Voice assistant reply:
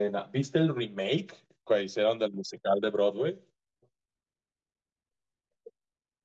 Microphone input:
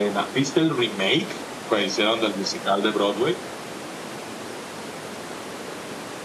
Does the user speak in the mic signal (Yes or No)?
No